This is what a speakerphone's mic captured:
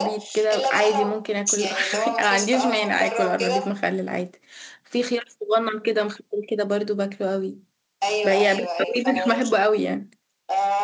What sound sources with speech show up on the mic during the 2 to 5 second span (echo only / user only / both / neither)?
both